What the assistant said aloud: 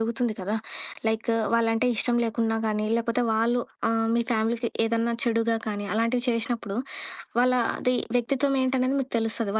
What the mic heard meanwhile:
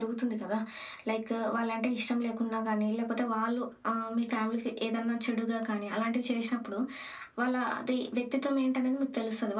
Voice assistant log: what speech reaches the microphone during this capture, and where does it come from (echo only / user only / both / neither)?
echo only